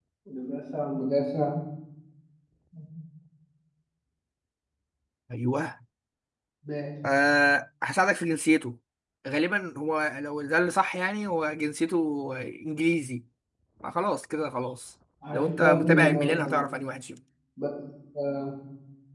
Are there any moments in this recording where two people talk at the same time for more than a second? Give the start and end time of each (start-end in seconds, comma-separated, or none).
15.3-16.6